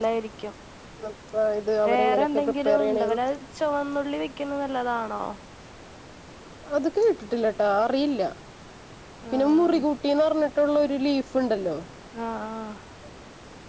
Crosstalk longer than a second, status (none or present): present